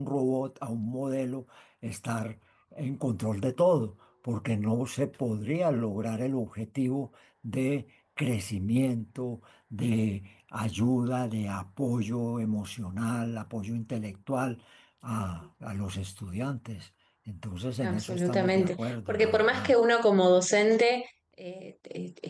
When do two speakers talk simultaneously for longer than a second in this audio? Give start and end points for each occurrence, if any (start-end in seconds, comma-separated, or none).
17.8-19.7